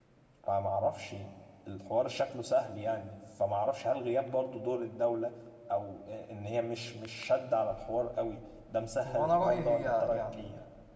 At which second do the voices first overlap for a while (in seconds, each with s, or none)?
9.0 s